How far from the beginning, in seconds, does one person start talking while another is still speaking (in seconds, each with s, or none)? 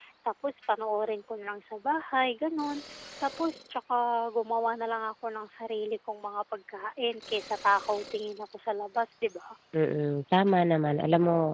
none